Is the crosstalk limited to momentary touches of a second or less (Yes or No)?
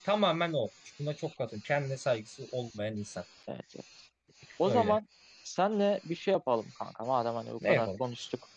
Yes